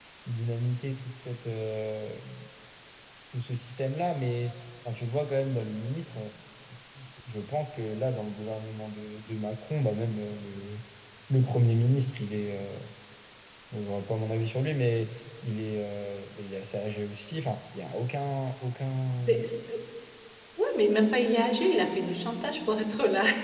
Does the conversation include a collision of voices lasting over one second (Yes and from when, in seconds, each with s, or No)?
No